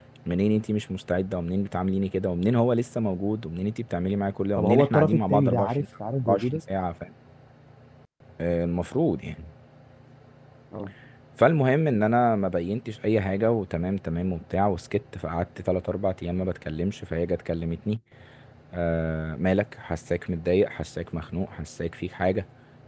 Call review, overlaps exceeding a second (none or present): present